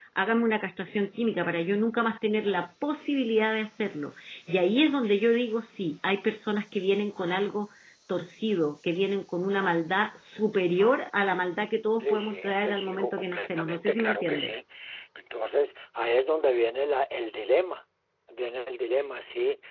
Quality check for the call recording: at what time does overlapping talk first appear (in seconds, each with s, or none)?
12.0 s